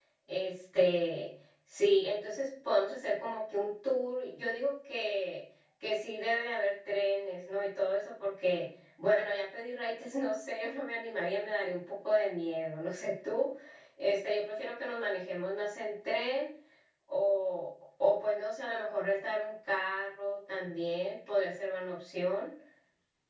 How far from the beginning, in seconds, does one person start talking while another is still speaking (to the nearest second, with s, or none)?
none